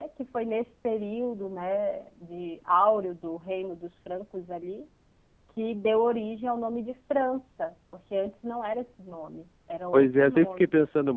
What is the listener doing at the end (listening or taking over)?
taking over